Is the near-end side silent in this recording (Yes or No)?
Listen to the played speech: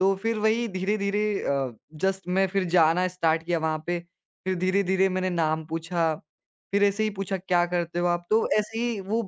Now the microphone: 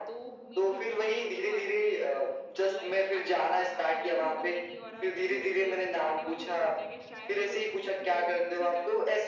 No